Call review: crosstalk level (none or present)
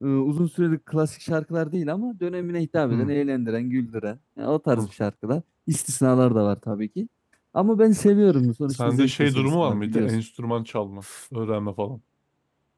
present